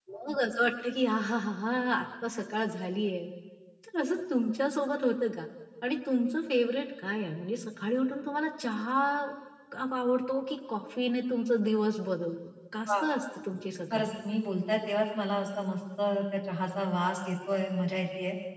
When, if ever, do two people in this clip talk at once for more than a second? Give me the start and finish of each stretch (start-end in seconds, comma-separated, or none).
none